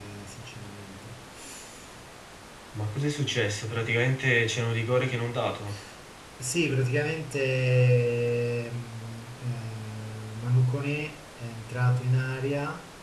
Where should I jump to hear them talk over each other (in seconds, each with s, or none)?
none